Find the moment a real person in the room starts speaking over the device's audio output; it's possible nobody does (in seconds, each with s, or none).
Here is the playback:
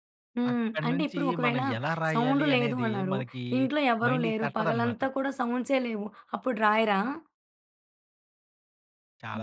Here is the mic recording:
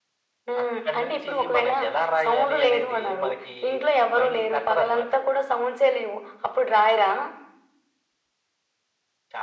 none